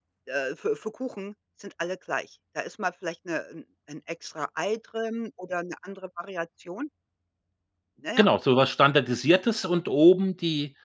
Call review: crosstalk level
none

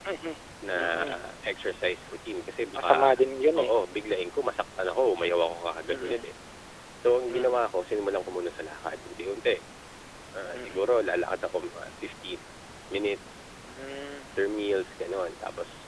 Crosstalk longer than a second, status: none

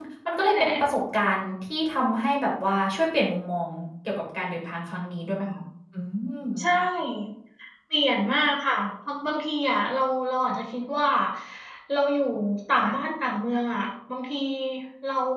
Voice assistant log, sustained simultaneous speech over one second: none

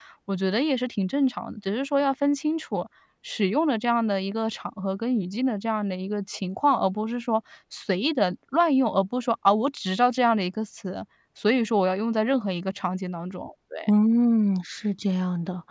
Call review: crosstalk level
none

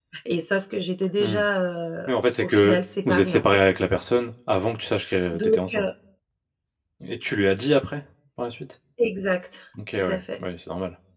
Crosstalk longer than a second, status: present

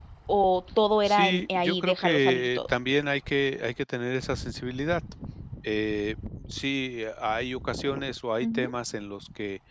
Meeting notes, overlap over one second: present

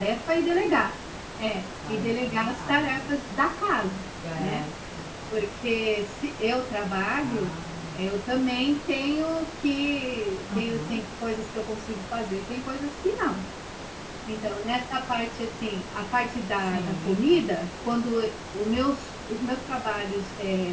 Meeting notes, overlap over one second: present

